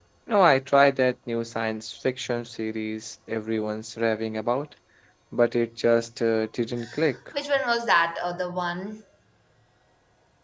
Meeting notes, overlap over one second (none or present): none